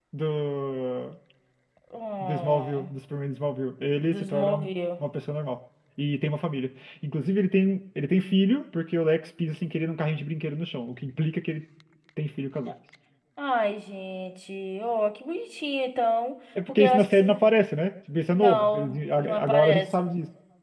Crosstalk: present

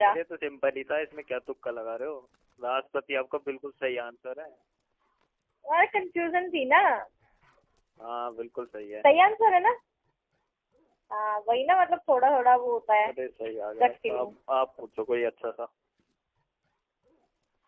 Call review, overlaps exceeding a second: none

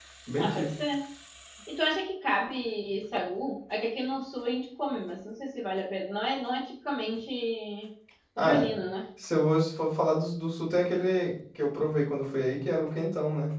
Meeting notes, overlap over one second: none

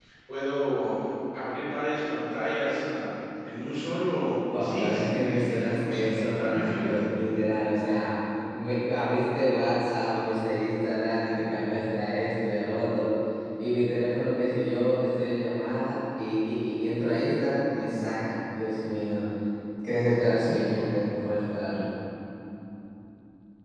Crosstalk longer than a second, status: present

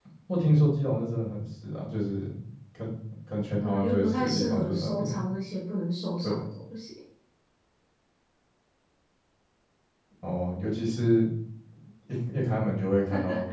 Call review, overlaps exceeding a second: present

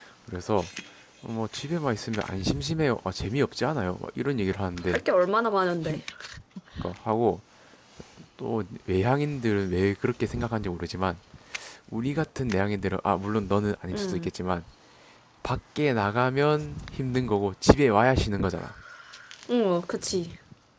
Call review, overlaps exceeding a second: none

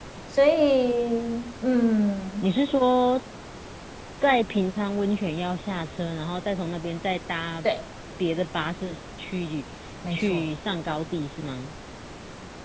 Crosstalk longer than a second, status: none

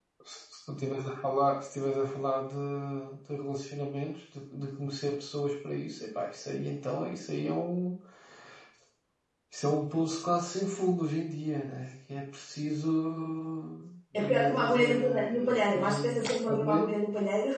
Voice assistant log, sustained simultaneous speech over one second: present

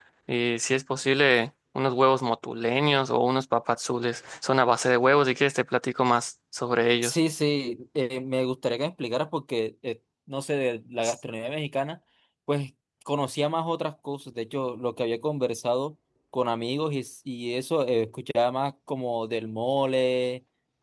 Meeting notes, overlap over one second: none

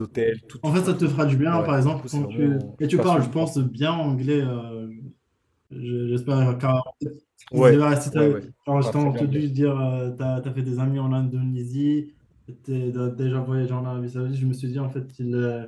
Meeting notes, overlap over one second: present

